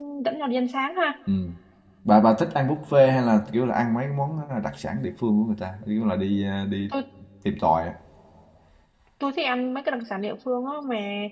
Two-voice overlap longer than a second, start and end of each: none

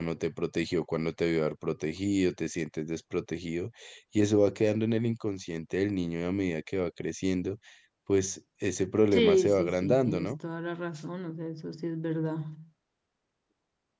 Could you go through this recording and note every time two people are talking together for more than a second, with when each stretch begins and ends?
9.1-10.4

